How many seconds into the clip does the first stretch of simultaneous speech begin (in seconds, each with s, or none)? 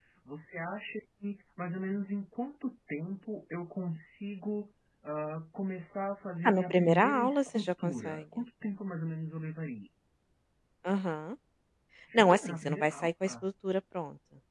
6.4 s